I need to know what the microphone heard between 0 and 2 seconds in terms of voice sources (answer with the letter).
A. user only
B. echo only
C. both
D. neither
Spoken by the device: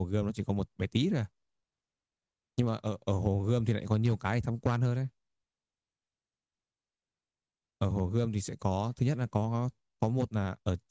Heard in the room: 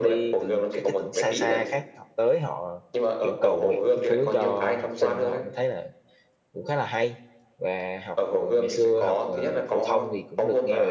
C